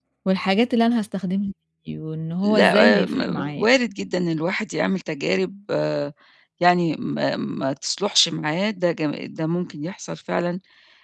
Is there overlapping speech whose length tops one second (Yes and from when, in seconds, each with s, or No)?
Yes, from 2.4 s